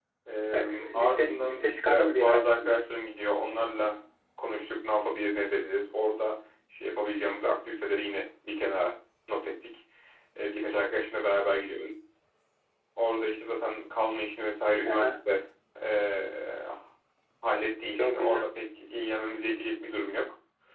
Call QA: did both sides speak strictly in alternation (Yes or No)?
No